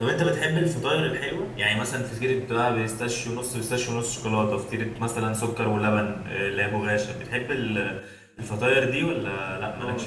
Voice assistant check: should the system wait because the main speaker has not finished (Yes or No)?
No